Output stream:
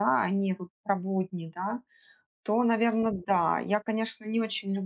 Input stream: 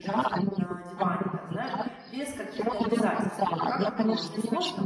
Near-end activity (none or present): present